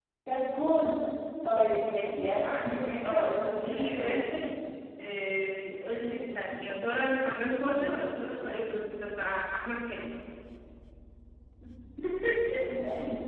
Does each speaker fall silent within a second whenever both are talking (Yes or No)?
No